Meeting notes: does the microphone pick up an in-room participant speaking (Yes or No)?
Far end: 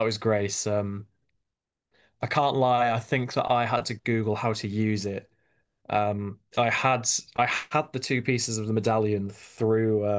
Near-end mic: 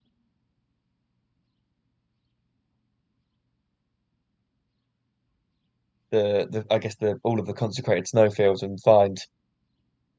Yes